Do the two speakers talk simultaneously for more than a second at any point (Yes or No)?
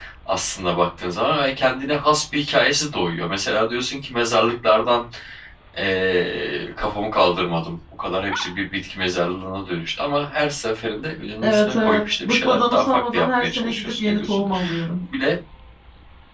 Yes